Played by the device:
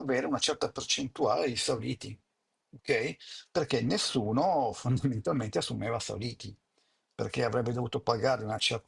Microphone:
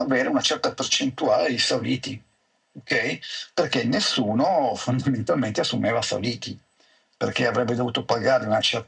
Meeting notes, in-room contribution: none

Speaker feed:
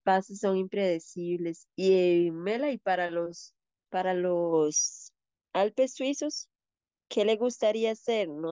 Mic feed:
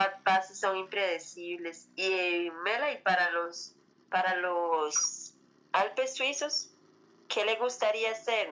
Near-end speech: none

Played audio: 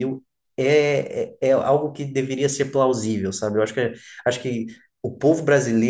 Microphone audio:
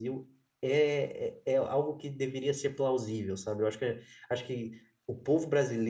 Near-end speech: none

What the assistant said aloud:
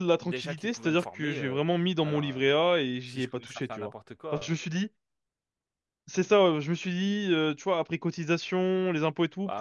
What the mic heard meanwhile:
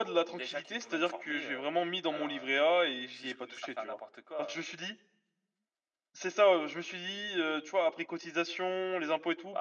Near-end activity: none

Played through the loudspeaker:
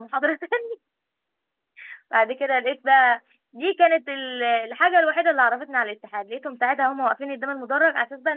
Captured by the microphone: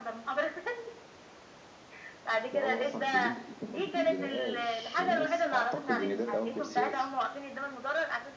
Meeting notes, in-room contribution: present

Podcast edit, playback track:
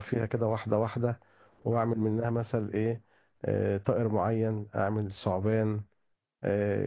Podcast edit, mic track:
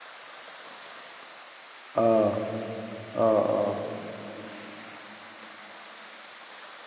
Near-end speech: present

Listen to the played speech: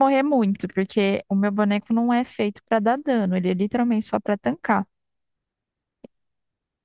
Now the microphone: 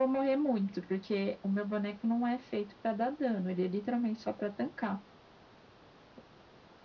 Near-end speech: none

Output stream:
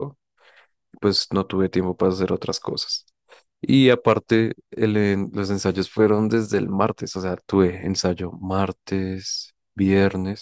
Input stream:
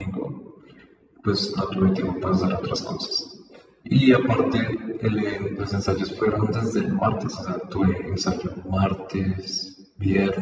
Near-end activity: none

